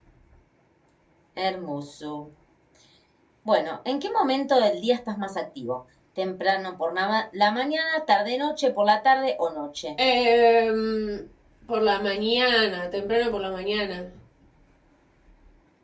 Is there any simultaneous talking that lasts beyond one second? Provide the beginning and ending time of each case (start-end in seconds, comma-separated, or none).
none